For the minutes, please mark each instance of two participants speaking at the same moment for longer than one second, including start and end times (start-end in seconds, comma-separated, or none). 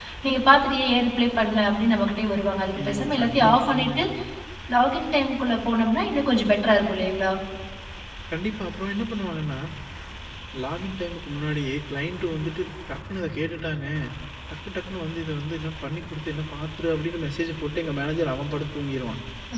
2.8-4.0